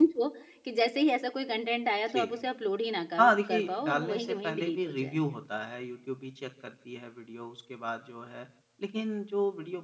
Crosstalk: present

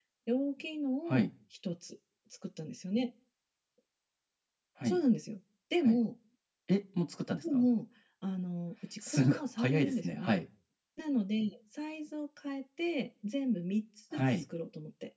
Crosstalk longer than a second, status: present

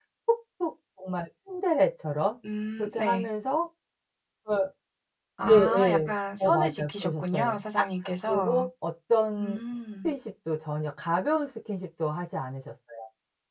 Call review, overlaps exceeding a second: present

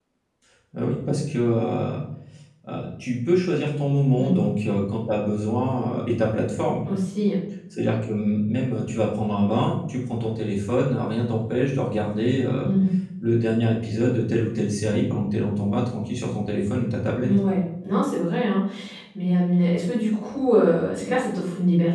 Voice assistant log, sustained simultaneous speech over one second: none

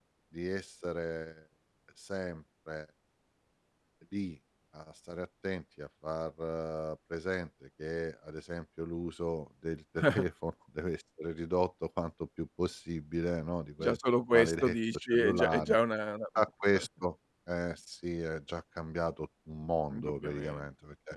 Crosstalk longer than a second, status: present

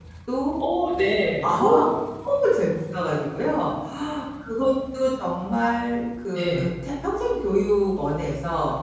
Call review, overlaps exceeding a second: none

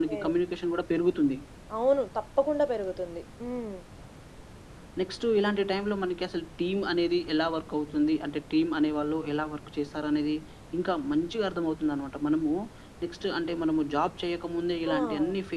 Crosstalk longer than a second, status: none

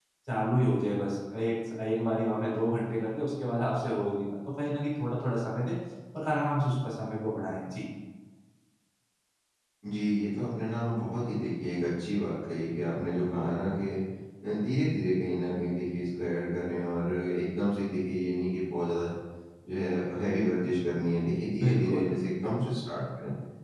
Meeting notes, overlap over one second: none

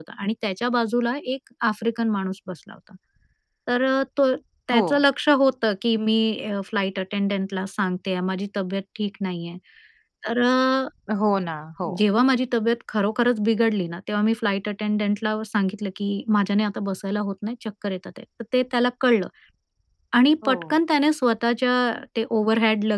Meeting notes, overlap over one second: none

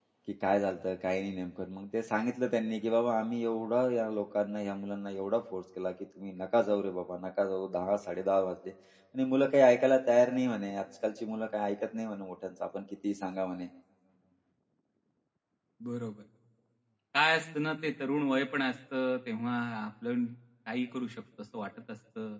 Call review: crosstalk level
none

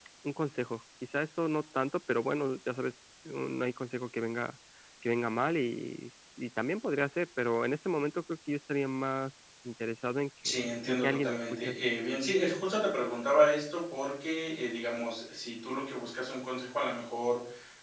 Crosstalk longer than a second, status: present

